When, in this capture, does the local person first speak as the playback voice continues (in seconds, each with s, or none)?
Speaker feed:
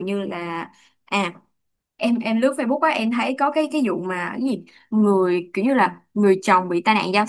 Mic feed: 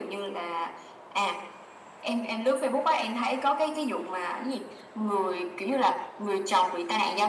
none